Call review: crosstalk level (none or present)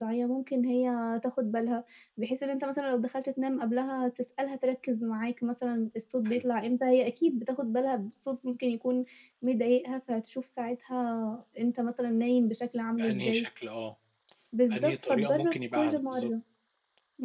present